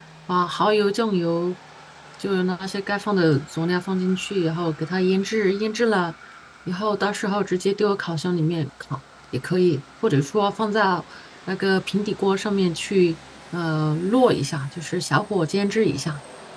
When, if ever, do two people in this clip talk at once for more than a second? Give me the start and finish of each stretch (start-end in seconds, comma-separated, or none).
none